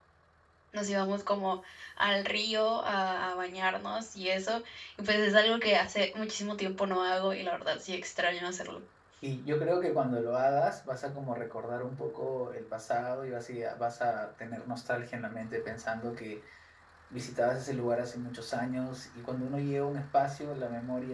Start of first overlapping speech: none

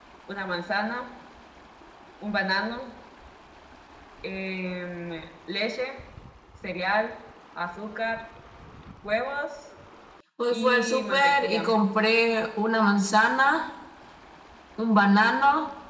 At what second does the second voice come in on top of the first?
10.5 s

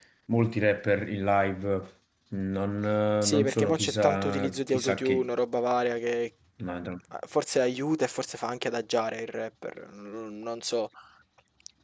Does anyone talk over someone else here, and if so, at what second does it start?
3.2 s

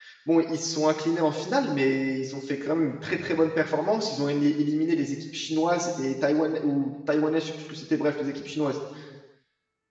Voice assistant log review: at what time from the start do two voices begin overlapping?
none

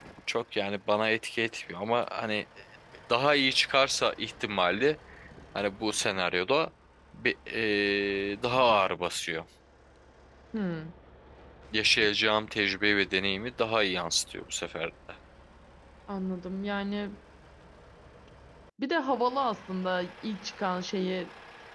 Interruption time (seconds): none

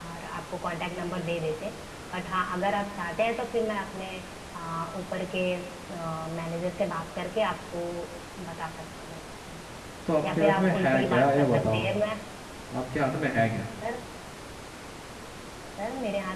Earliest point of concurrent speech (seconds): 10.2 s

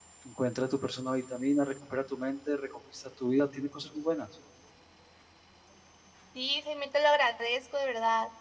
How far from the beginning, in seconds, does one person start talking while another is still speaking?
none

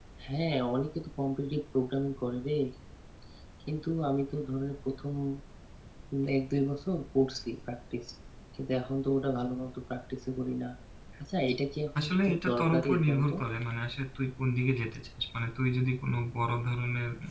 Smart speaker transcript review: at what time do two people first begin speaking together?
12.0 s

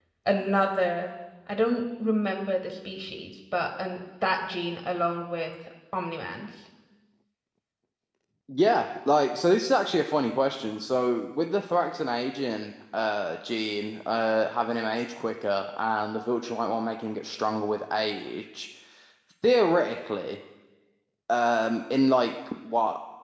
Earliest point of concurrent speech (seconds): none

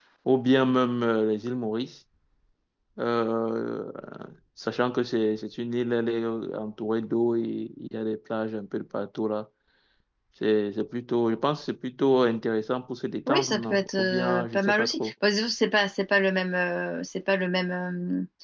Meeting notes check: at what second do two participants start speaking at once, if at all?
13.3 s

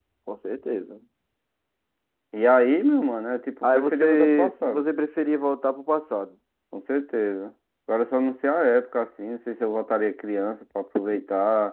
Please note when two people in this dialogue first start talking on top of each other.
3.6 s

